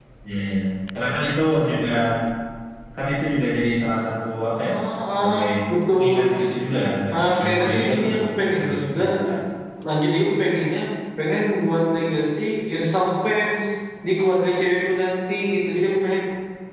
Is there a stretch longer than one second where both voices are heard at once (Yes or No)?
Yes